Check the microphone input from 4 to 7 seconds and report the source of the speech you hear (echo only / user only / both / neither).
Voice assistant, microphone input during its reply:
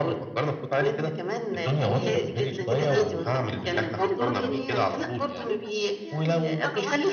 both